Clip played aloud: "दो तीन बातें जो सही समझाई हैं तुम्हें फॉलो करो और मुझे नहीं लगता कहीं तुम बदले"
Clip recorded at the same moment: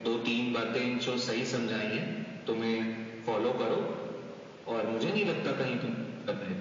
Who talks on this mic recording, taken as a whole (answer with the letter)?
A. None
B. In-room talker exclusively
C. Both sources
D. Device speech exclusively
D